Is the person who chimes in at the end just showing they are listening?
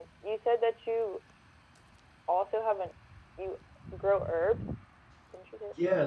No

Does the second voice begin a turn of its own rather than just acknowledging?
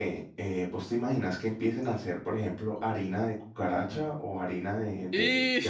No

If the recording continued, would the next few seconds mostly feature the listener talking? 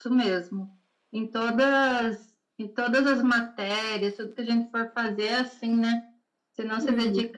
No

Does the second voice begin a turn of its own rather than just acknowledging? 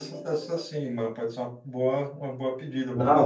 Yes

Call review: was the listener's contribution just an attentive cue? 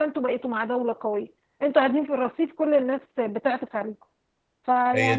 No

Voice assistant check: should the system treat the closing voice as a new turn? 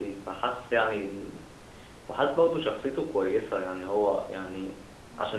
No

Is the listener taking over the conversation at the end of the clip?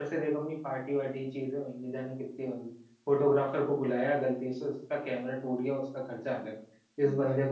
No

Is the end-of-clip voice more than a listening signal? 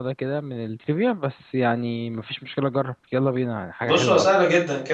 Yes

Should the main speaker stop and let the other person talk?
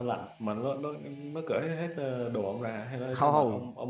Yes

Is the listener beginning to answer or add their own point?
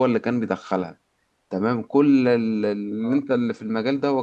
No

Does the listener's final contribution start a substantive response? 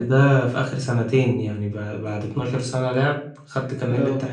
No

